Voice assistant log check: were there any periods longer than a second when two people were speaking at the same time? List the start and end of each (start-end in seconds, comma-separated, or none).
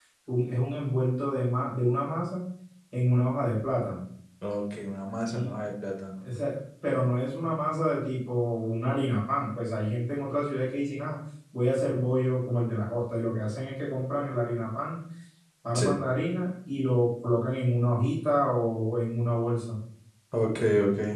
none